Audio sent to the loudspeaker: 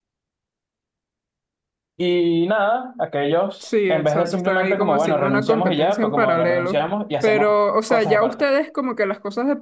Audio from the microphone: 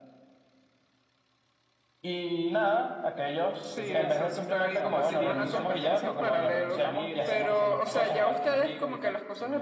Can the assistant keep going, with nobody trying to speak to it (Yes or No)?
No